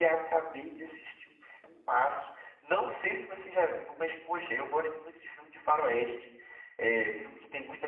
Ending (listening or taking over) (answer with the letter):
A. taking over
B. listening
B